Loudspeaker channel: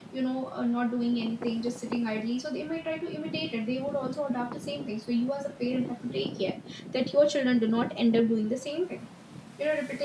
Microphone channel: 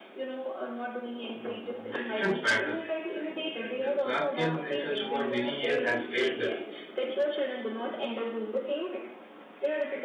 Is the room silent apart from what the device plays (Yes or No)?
No